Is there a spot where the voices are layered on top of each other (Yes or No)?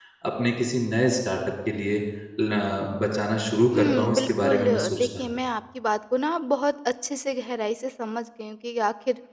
Yes